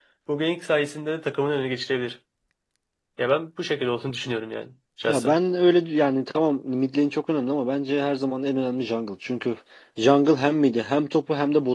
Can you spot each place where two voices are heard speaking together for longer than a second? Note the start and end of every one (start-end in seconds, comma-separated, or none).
none